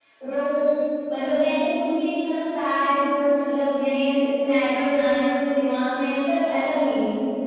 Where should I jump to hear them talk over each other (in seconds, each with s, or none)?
none